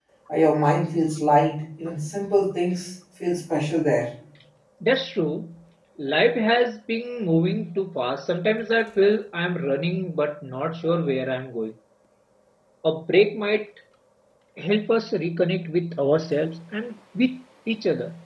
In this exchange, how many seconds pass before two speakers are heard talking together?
none

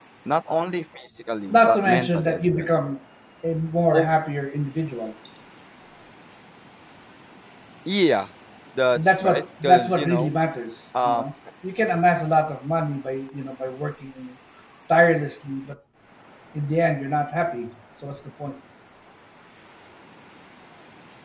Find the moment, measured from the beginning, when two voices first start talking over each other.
1 s

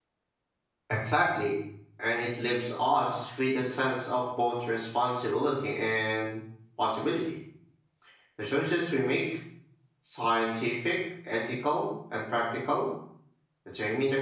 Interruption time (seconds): none

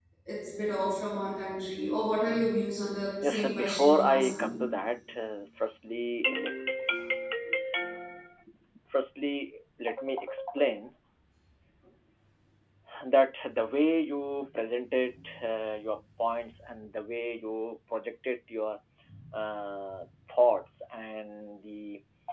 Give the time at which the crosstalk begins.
3 s

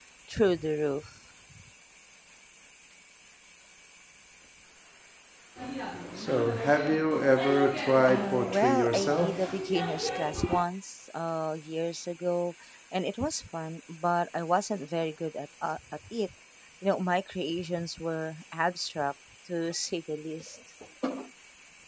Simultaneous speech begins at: 8 s

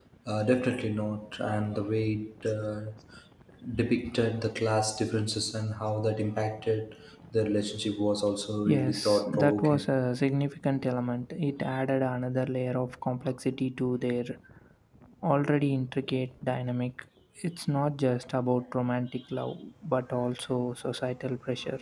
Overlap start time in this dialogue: 9 s

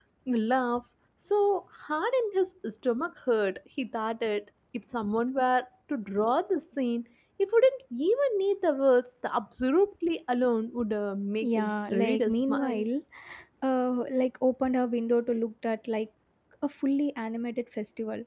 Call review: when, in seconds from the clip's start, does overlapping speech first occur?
11 s

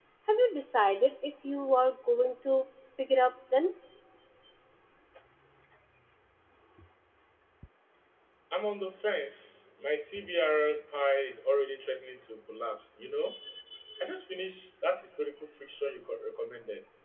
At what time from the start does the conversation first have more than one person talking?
none

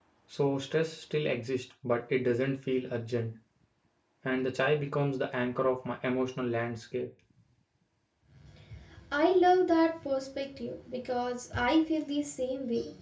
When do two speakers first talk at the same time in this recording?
none

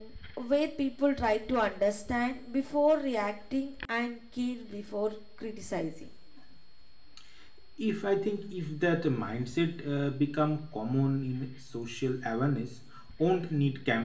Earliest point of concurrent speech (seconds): none

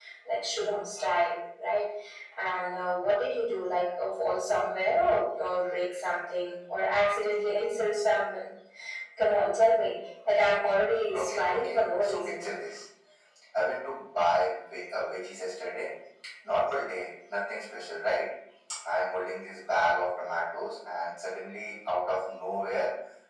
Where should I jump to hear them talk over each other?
11 s

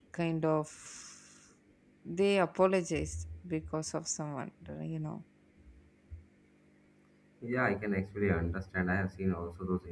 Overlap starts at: none

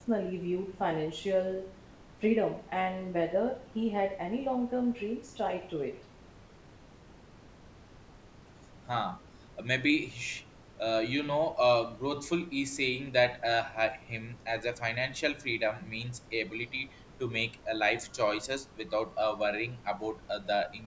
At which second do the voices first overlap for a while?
none

